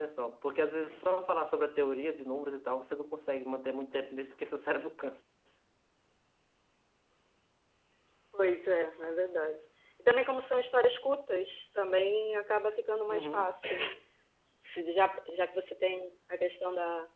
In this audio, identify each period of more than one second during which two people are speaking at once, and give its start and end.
none

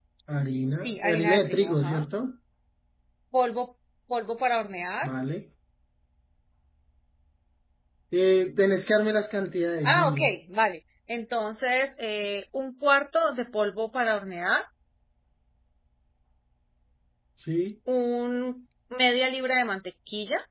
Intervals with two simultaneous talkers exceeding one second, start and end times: 0.8-2.0

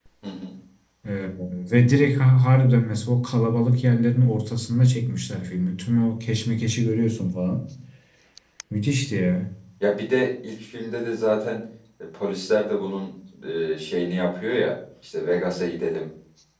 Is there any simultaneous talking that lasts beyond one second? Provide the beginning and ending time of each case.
none

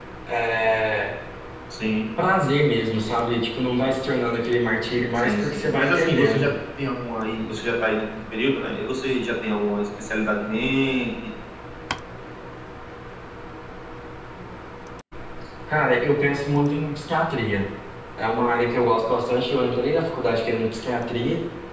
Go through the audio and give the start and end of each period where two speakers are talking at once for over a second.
5.1-6.5

